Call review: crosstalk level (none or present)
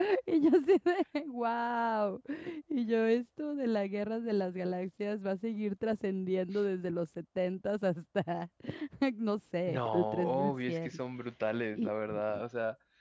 present